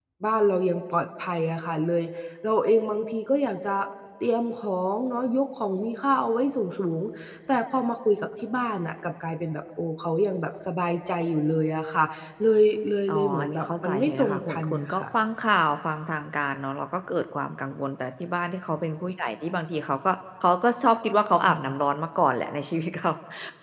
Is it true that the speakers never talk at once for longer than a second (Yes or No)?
No